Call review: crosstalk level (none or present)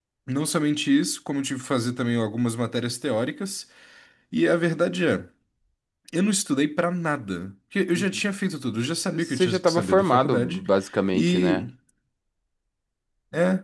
present